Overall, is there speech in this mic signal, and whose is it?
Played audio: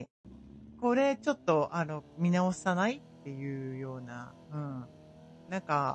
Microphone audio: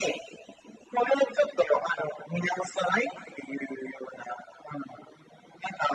echo only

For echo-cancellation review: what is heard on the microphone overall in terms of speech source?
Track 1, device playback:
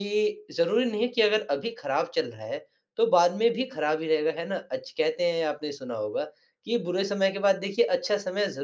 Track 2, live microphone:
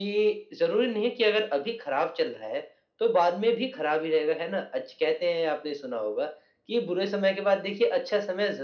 echo only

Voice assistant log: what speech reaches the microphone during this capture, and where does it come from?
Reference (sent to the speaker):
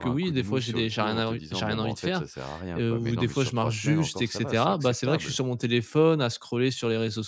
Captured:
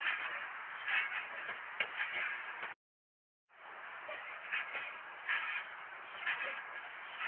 neither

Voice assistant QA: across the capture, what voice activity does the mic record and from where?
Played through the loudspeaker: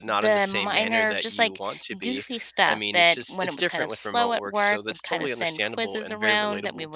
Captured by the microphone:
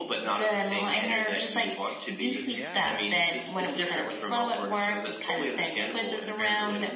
both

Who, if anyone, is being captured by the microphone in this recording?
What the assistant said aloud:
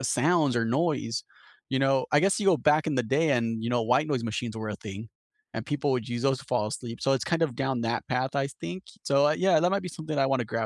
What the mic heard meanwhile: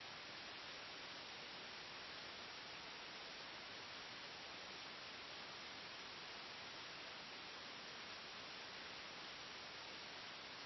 neither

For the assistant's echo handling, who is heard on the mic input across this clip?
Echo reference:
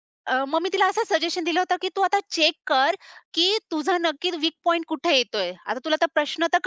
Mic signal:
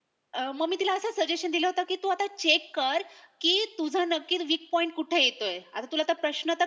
echo only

